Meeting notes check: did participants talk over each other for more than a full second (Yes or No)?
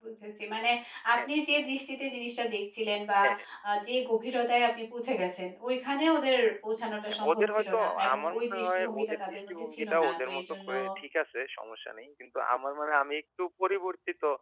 Yes